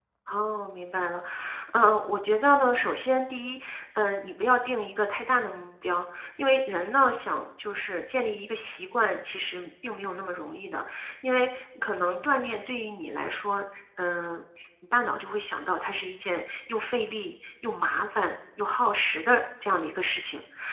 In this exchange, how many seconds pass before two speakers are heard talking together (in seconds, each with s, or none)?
none